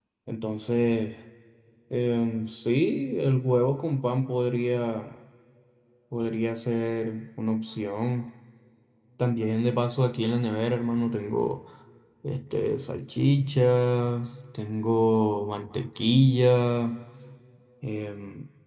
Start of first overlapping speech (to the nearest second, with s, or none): none